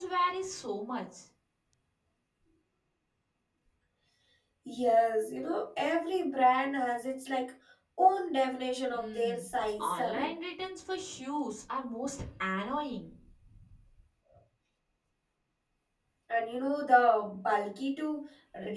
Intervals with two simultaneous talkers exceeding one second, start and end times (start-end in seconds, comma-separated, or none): none